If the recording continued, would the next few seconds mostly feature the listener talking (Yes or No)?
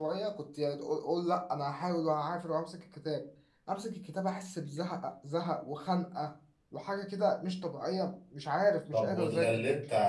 Yes